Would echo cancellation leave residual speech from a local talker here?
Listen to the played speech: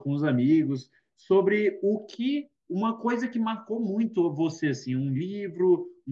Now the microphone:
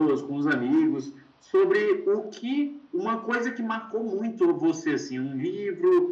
No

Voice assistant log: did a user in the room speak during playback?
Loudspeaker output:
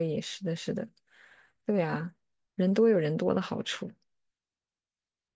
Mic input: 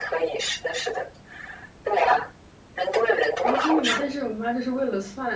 Yes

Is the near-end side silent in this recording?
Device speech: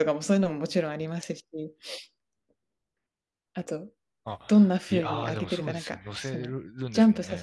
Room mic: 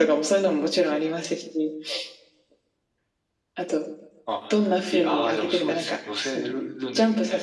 Yes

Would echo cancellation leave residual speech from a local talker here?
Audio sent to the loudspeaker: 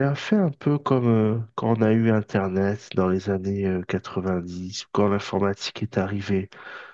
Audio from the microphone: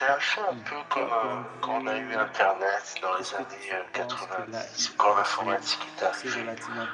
Yes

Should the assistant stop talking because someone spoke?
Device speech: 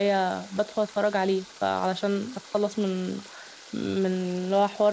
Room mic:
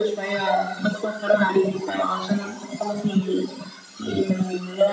No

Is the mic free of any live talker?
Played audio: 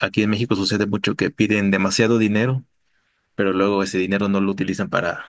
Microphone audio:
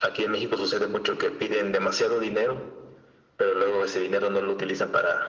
Yes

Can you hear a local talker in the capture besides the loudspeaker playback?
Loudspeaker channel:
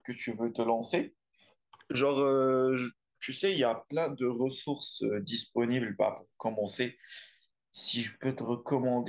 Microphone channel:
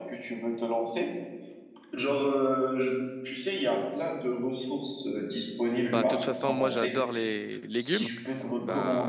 Yes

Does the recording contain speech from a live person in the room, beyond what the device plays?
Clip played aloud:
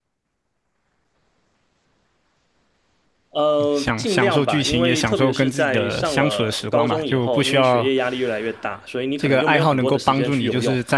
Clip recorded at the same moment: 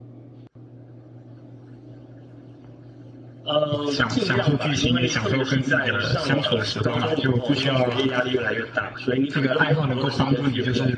No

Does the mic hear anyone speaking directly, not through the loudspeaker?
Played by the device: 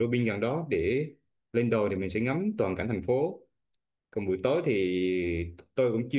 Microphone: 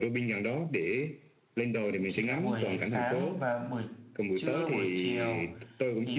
Yes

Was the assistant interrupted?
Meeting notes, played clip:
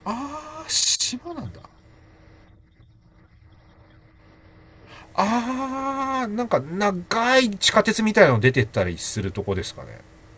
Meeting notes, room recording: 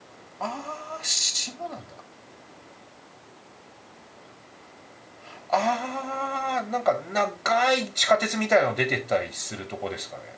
No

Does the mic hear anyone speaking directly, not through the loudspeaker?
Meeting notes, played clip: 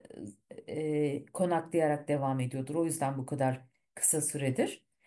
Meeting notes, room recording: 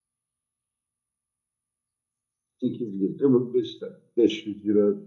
Yes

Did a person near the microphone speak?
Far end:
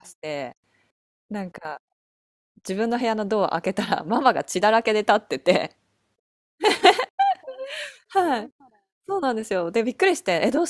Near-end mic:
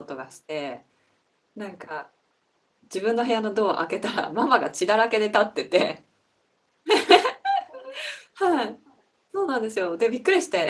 No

